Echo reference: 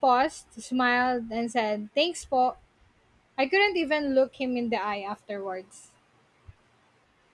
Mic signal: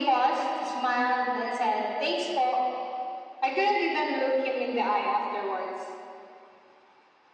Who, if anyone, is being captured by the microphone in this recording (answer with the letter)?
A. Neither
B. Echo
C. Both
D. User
B